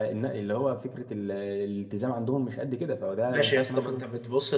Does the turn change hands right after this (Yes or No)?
Yes